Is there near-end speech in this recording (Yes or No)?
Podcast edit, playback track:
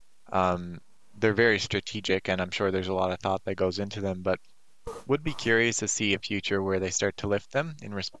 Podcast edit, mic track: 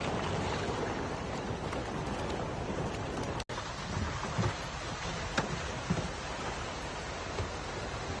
No